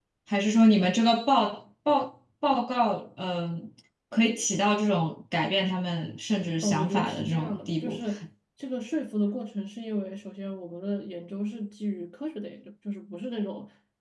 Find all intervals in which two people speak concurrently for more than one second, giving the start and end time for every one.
6.6-8.0

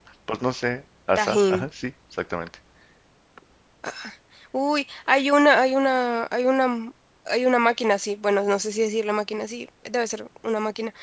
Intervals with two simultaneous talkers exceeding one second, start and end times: none

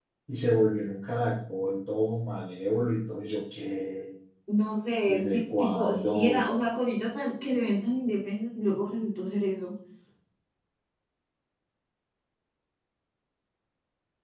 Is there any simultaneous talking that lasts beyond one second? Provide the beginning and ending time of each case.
5.1-6.5

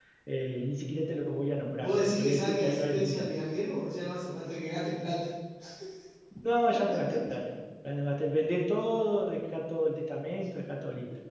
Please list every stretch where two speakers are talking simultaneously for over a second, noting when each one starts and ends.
1.8-3.3

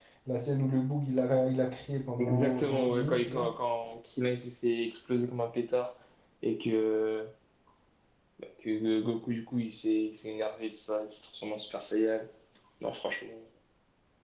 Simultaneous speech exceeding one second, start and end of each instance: 2.2-3.5

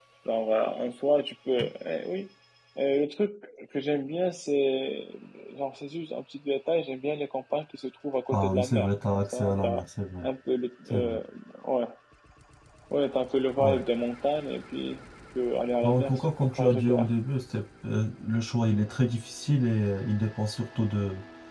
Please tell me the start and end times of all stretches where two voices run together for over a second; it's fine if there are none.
8.3-9.8, 15.8-17.1

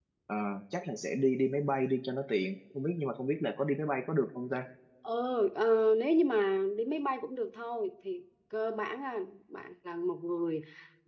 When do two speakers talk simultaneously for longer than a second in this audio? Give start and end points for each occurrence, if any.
none

